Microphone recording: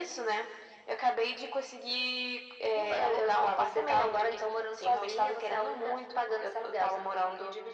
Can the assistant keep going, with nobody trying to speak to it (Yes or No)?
Yes